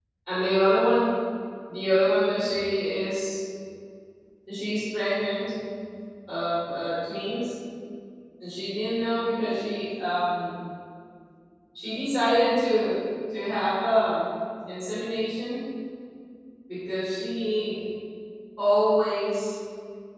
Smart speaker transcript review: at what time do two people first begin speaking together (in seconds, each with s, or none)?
none